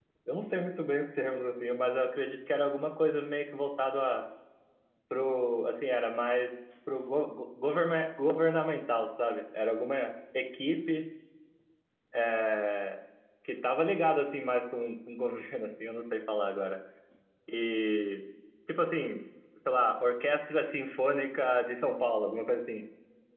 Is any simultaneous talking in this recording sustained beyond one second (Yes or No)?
No